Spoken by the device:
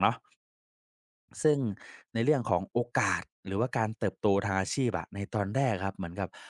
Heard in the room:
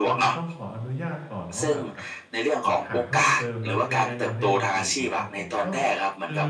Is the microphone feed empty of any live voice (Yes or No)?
No